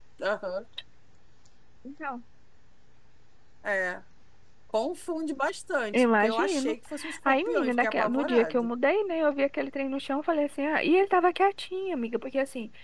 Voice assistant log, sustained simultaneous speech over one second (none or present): present